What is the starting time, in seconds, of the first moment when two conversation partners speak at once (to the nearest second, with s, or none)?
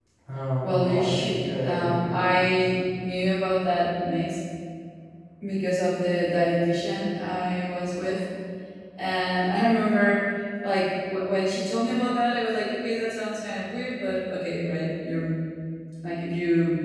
1 s